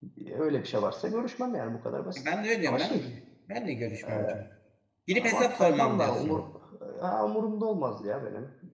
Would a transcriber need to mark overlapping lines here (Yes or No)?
Yes